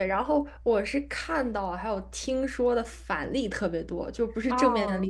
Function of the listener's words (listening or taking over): listening